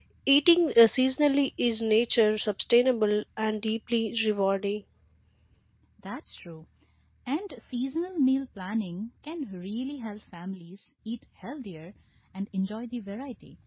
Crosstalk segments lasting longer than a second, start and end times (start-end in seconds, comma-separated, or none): none